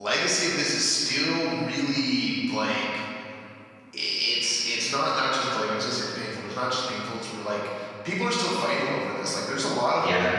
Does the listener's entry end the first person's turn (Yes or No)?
No